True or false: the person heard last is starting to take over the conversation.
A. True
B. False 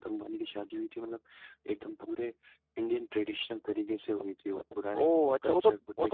A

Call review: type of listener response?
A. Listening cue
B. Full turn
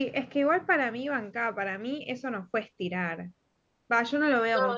A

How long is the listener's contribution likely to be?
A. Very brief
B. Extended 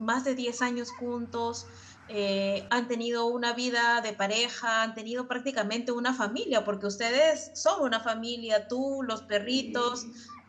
A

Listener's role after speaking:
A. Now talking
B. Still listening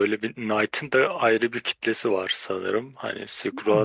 A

